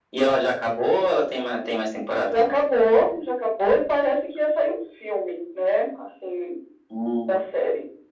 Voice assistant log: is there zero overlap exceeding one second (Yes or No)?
Yes